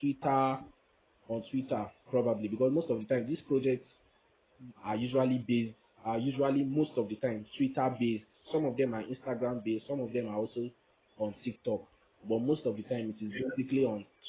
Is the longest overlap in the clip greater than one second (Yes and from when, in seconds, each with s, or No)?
No